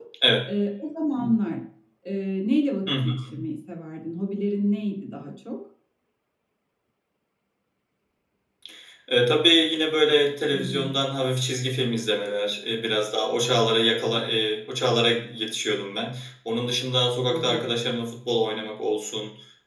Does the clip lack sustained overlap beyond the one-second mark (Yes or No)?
Yes